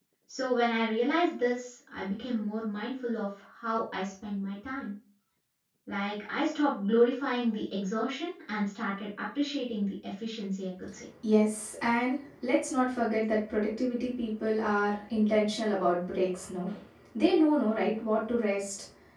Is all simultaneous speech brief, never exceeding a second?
Yes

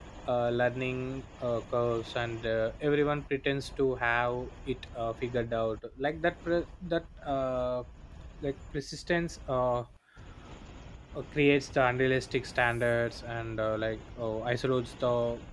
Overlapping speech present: No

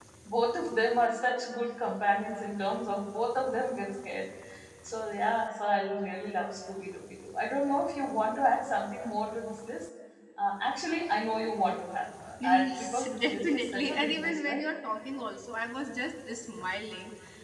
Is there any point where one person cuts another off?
Yes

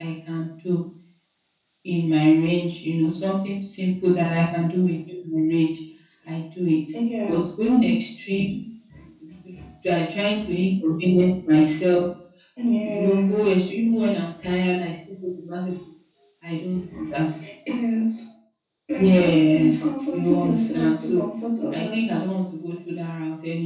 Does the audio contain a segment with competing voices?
Yes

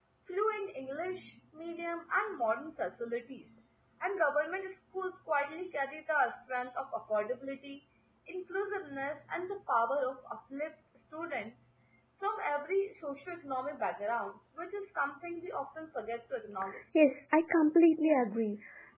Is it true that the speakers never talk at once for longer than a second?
Yes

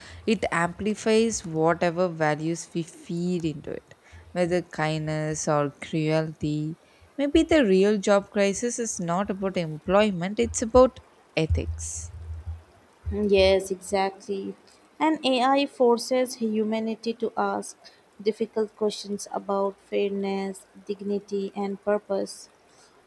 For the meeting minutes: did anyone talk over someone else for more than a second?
No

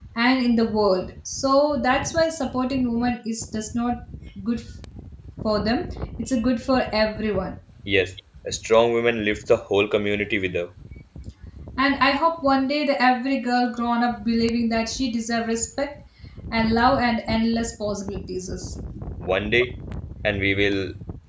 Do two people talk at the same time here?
No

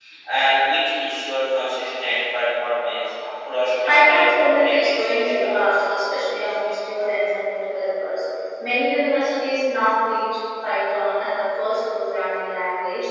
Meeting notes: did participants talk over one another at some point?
Yes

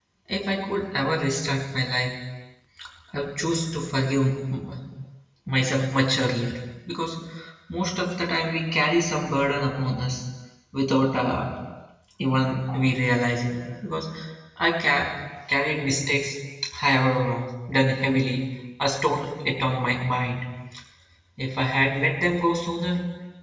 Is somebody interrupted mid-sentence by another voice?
No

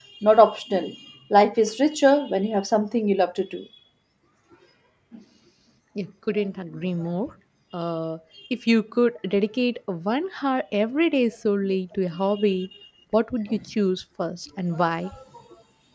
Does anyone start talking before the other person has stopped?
No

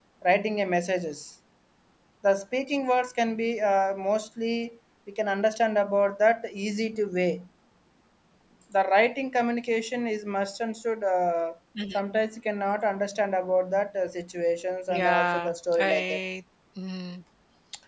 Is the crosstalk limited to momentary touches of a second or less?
No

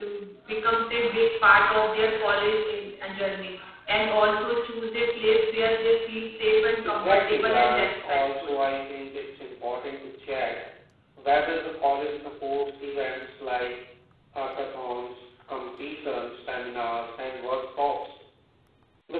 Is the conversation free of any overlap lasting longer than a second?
No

